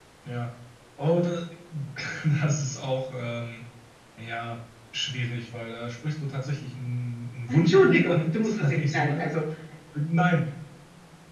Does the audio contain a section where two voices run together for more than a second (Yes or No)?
Yes